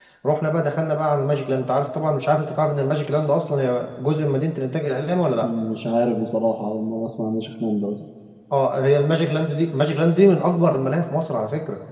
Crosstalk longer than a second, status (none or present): none